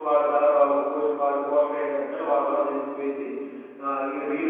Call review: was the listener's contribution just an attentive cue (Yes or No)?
Yes